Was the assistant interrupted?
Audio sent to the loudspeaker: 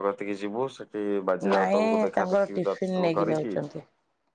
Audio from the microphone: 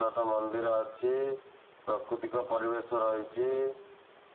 Yes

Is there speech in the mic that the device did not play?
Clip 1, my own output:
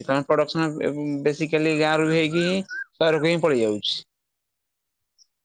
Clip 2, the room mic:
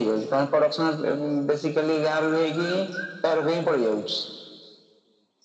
No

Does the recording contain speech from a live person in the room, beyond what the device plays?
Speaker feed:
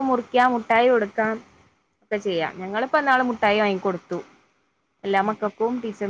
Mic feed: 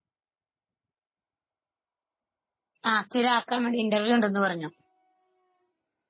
Yes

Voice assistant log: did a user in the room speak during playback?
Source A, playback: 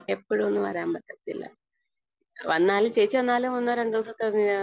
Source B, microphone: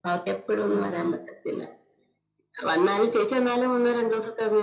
Yes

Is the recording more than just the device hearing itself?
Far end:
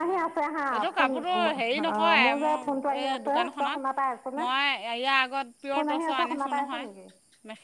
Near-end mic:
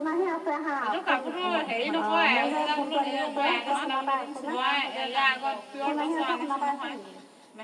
Yes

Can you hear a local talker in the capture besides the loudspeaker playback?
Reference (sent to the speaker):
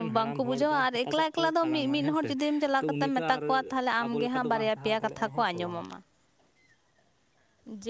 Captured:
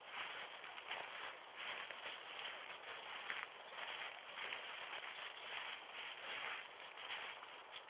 No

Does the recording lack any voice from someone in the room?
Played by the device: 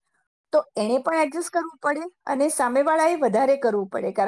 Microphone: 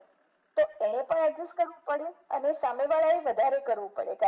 Yes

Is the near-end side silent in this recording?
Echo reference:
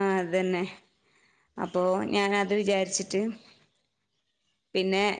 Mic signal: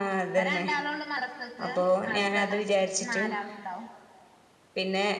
No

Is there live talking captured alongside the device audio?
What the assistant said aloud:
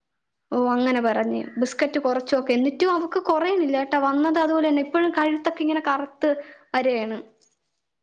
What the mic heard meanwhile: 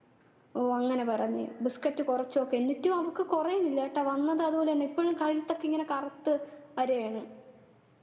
No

